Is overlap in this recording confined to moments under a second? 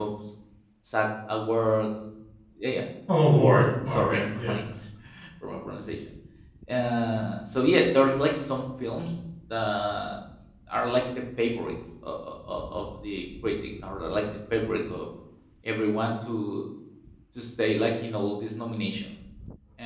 No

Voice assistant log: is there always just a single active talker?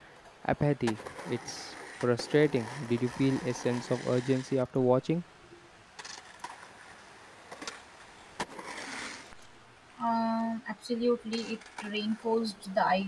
Yes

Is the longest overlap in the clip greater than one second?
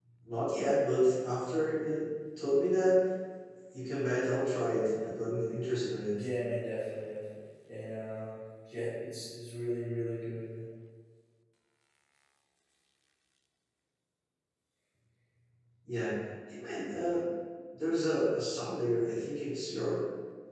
No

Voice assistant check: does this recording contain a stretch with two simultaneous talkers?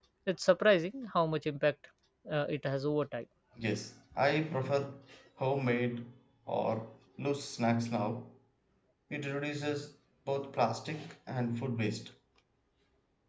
No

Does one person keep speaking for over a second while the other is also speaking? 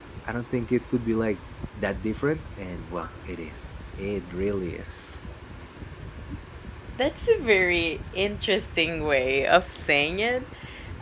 No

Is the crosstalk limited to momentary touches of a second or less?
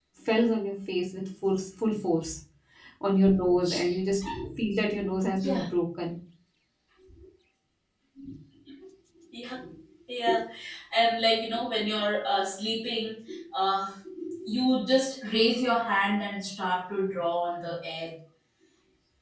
Yes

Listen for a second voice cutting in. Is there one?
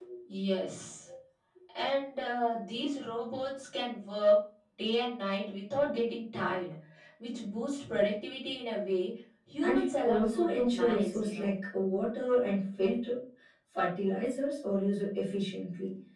Yes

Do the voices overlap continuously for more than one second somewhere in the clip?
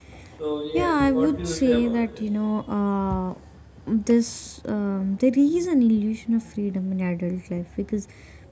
Yes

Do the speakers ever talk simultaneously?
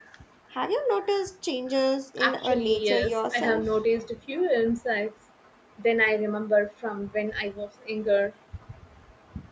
Yes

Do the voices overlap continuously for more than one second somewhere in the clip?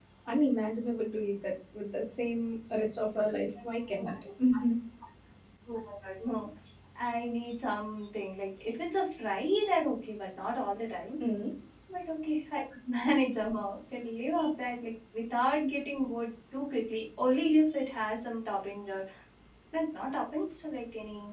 No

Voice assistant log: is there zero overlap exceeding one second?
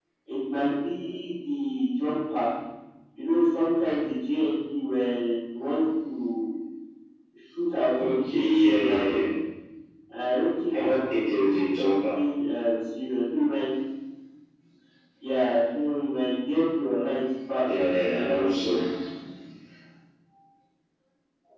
No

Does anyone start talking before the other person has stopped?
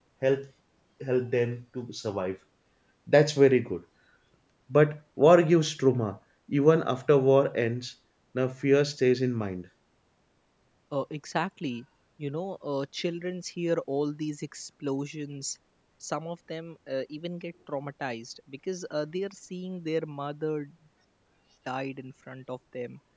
No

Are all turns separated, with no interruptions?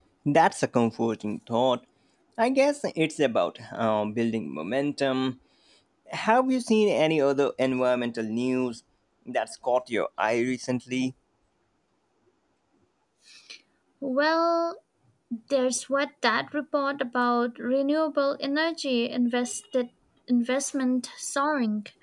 Yes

